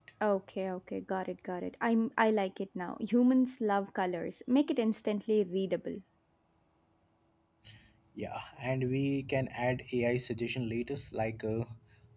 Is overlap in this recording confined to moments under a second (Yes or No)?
Yes